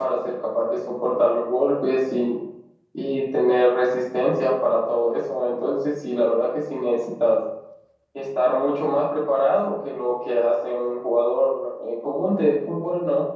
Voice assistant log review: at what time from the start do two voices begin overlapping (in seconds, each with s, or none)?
none